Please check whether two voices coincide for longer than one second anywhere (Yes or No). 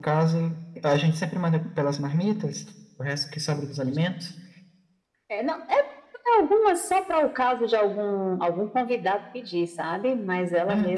No